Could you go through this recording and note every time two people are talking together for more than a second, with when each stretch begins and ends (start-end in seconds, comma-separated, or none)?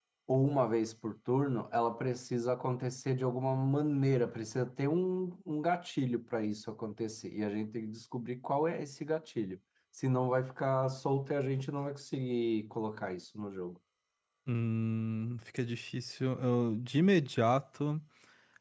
none